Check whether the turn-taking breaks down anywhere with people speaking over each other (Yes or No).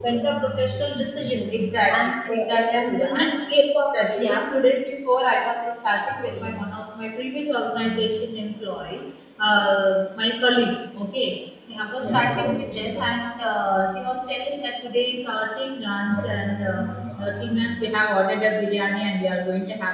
Yes